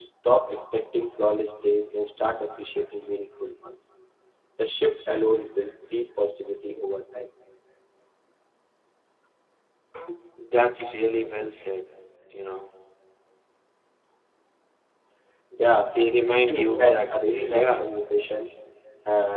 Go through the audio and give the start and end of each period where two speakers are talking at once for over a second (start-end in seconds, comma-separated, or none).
16.4-17.9